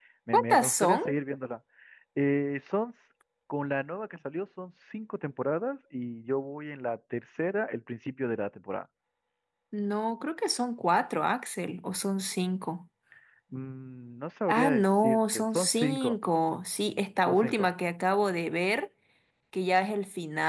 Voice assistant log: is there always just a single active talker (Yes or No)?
No